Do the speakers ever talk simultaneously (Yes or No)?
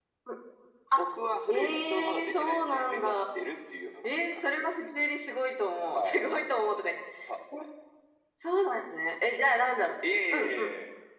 Yes